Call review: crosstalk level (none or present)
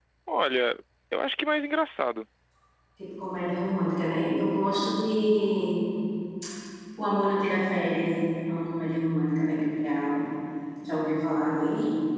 none